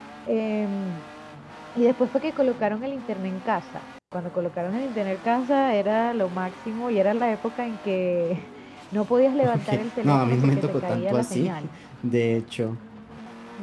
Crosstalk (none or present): present